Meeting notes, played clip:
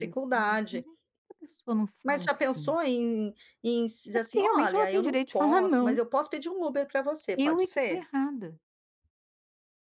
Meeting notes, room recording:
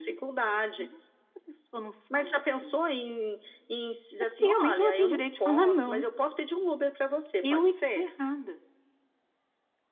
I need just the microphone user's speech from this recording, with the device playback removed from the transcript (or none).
none